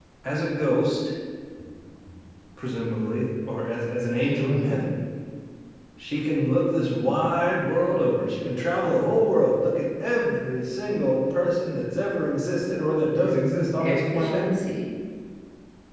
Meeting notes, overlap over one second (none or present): present